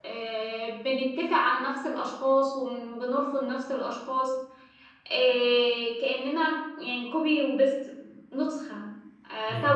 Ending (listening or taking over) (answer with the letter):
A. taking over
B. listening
B